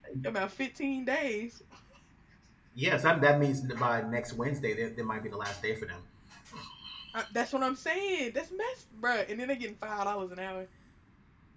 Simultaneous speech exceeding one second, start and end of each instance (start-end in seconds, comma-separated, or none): none